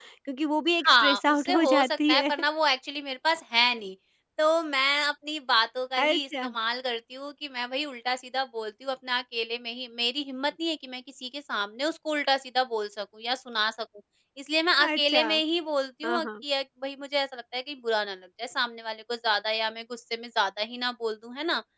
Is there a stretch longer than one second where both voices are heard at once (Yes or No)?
Yes